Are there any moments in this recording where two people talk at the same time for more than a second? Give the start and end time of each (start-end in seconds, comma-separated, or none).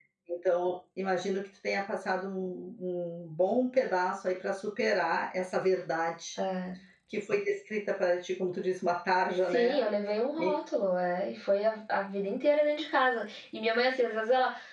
none